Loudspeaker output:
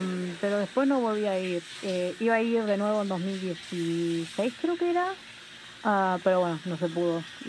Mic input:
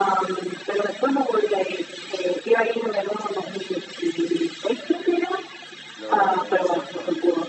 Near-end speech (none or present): present